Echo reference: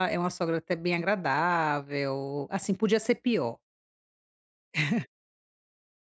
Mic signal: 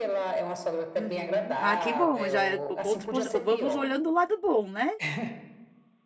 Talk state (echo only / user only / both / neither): both